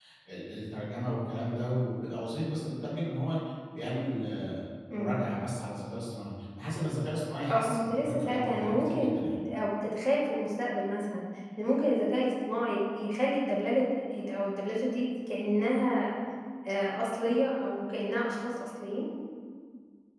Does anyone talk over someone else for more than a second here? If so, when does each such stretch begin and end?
7.5-9.4

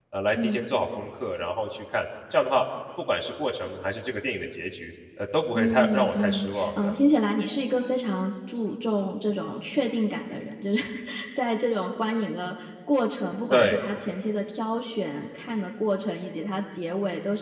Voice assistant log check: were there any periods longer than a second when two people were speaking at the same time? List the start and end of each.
5.5-7.0

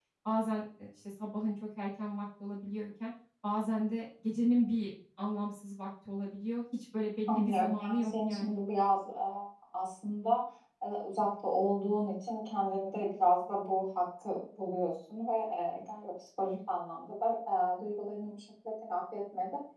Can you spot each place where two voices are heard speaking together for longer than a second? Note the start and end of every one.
7.3-8.6

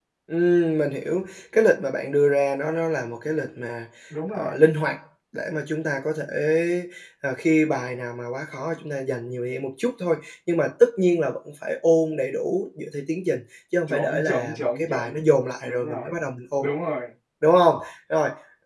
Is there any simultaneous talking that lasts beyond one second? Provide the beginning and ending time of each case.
13.9-15.2

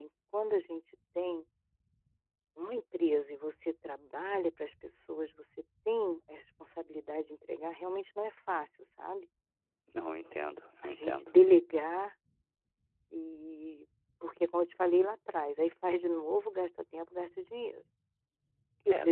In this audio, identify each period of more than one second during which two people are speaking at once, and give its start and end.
none

